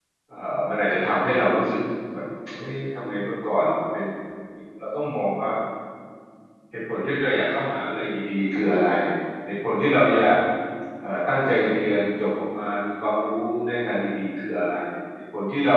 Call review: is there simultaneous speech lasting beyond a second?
No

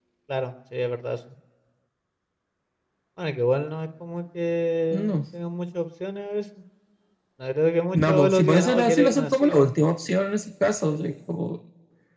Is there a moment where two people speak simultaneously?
Yes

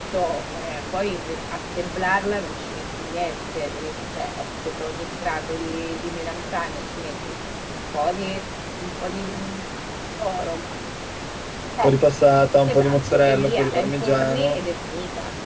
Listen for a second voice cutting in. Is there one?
Yes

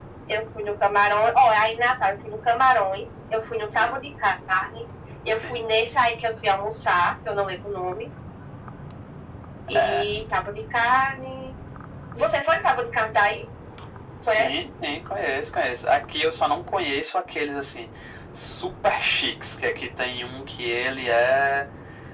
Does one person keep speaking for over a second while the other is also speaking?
No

